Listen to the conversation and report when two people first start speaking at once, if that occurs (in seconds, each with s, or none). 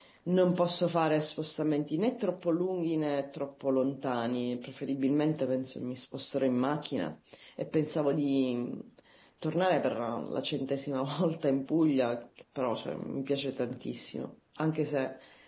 none